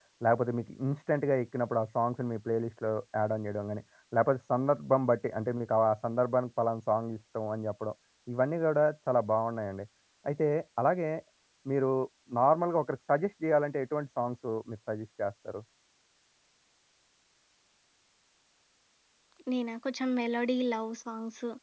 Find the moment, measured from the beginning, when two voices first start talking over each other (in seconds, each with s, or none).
none